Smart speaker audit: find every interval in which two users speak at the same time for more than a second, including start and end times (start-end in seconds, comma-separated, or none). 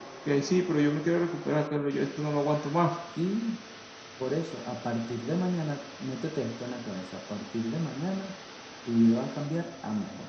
none